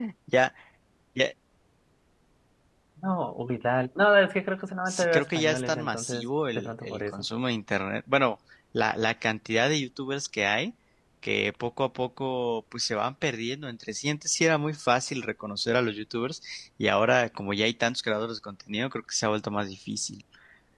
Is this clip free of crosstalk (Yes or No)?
No